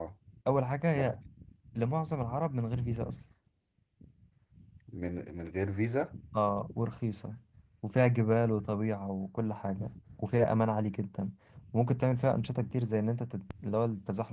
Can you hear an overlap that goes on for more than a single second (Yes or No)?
No